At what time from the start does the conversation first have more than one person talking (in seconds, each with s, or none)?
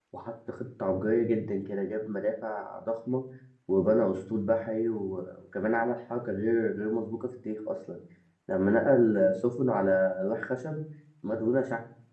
none